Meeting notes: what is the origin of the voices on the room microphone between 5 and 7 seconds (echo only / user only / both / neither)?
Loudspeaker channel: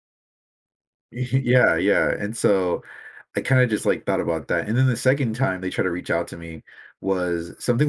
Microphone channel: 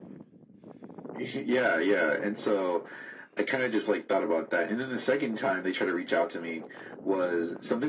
echo only